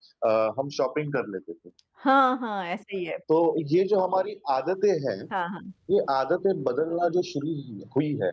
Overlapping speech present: No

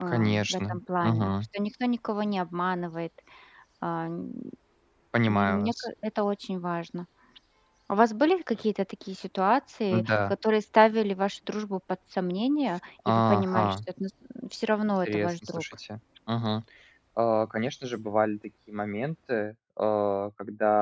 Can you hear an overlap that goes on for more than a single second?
Yes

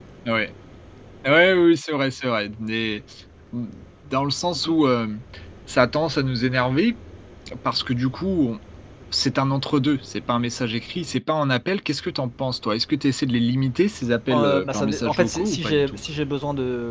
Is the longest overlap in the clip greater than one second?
Yes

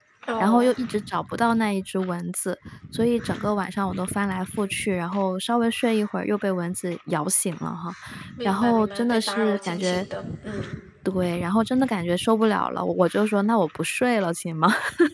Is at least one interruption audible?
Yes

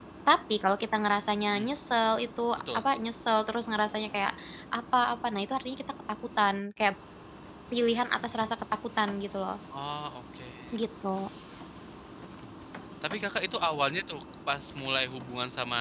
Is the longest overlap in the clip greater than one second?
No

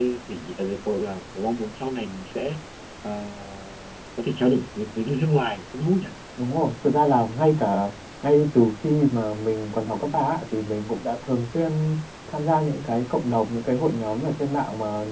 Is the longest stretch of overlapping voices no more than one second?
Yes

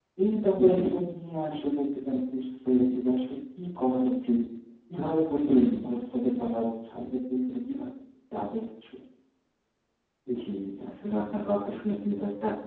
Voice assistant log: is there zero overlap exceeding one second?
Yes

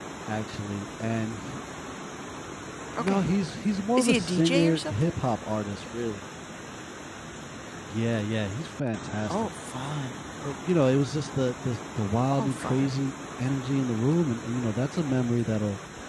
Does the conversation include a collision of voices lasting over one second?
Yes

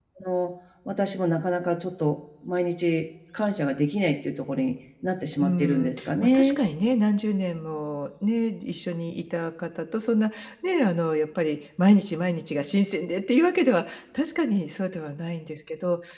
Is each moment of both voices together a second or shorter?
No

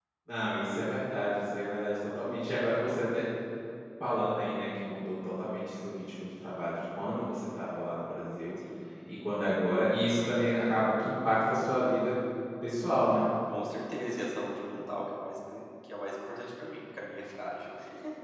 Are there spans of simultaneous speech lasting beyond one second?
No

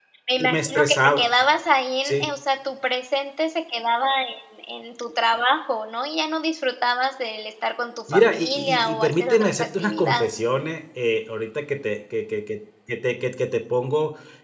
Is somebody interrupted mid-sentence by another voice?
Yes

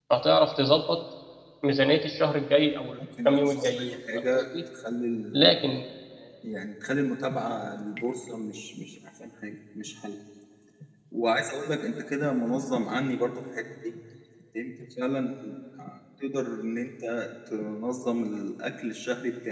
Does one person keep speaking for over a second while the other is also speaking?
Yes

